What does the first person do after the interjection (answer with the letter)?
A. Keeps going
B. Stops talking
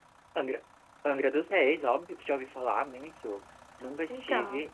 A